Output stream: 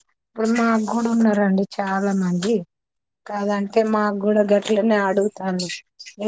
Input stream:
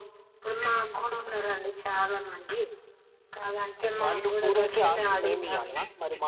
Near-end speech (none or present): present